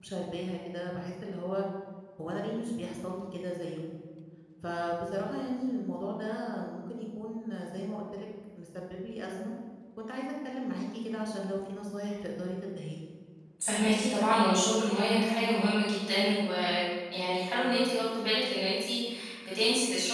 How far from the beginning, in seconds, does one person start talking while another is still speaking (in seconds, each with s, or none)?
none